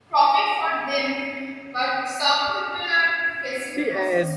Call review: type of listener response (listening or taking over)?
taking over